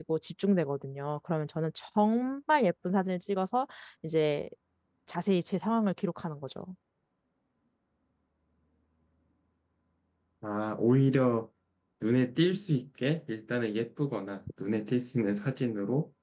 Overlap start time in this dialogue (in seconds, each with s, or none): none